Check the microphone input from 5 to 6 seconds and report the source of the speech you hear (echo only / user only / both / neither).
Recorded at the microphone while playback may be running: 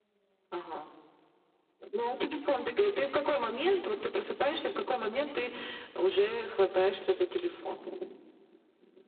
echo only